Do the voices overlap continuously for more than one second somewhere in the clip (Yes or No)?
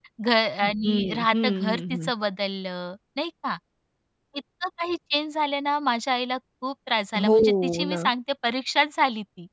Yes